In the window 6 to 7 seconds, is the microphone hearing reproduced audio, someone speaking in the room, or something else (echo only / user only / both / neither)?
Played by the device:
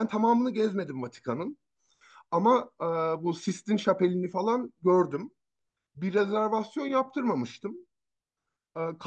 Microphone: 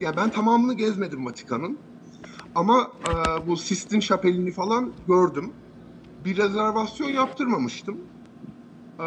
echo only